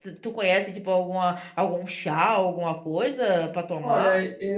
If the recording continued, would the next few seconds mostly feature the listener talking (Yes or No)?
Yes